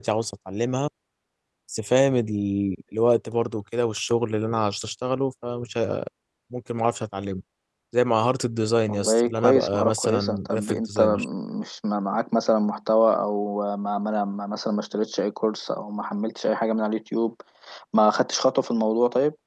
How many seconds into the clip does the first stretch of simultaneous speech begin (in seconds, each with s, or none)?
8.9 s